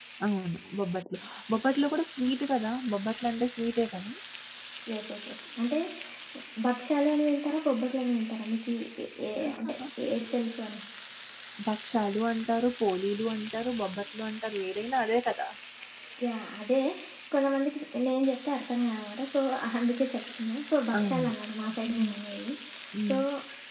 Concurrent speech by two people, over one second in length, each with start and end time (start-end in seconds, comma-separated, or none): none